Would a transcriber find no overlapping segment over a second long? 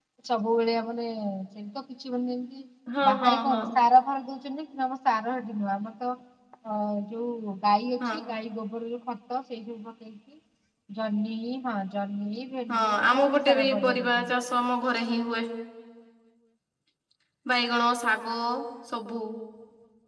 No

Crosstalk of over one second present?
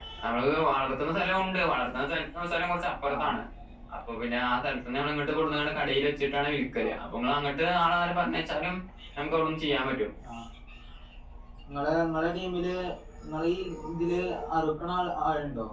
No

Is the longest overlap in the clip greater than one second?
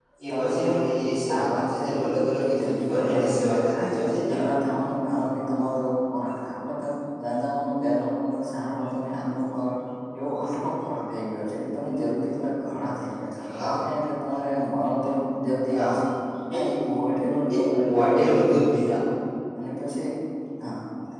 Yes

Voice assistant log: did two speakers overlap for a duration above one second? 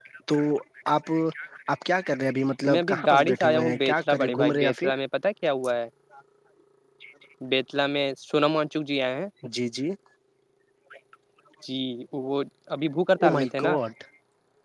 Yes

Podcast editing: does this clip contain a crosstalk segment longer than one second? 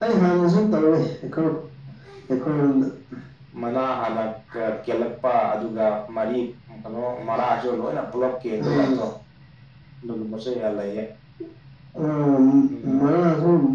No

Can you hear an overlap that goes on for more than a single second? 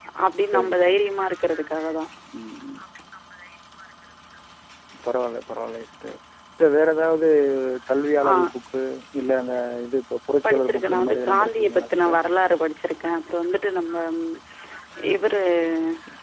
Yes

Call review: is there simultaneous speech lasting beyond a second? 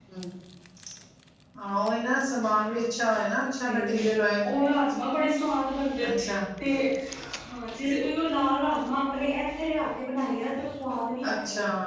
No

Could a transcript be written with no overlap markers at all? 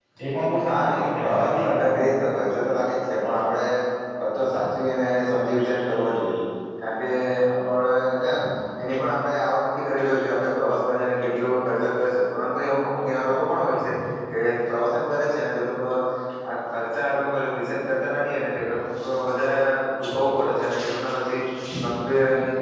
No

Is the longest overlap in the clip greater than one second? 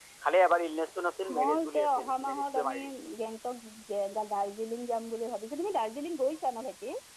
Yes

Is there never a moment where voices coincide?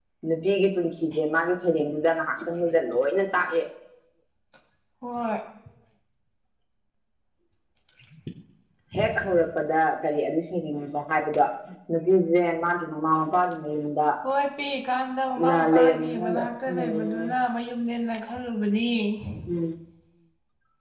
No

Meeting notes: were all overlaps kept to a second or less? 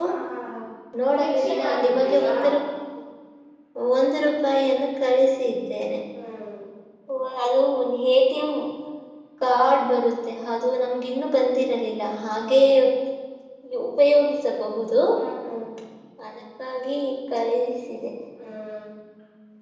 No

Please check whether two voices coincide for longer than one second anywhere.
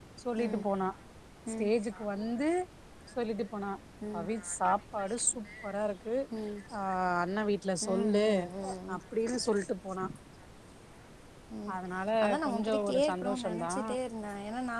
Yes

